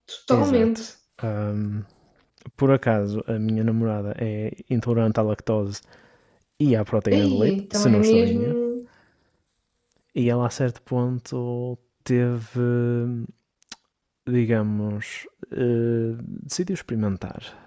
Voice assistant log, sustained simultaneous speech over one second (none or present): present